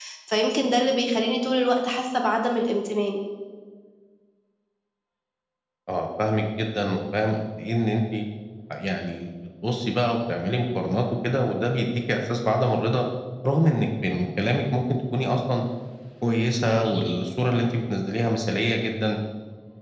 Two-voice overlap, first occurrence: none

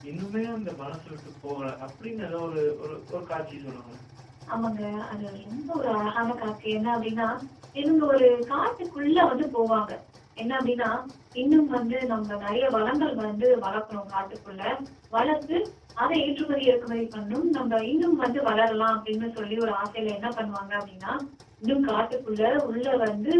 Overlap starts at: none

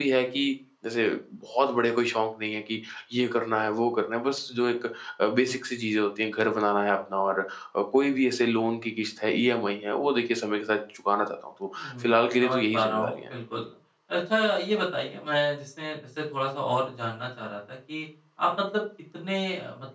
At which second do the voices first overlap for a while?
11.8 s

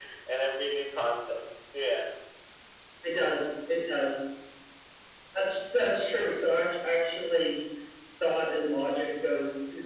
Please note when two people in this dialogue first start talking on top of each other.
none

